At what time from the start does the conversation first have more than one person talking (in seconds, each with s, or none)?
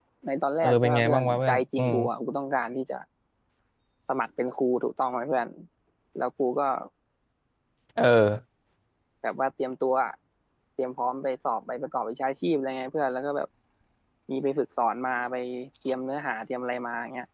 0.6 s